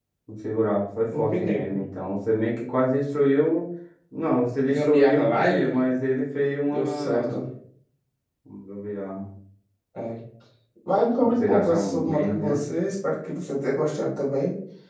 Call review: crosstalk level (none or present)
present